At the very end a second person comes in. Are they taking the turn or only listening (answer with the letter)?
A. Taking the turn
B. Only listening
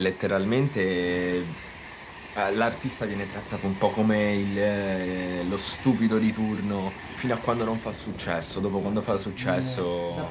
A